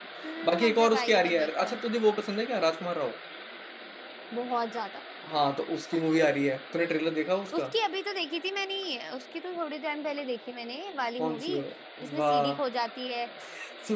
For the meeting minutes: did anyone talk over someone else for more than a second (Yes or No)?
Yes